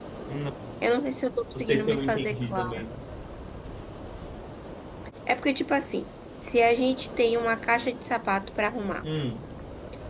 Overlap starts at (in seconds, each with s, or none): 1.6 s